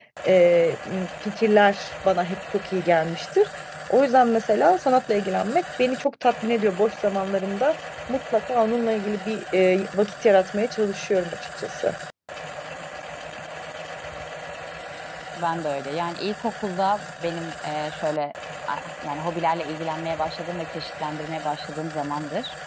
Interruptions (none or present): none